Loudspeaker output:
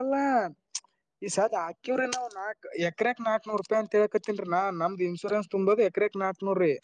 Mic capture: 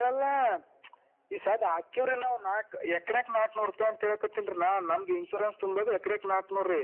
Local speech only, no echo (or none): none